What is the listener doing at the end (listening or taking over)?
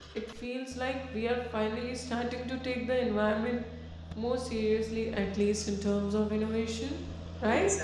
taking over